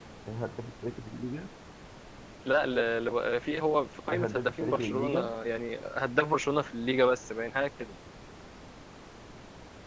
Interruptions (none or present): present